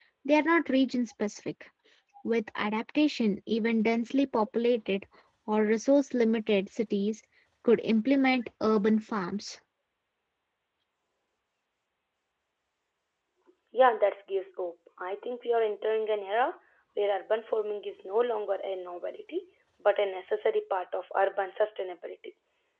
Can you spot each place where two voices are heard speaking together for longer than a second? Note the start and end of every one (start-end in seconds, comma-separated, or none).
none